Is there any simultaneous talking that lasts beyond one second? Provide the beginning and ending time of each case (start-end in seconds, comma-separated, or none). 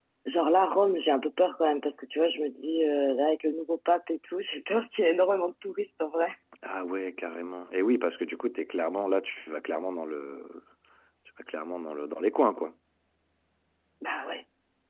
none